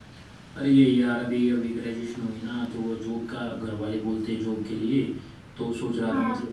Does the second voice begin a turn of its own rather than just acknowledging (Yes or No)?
No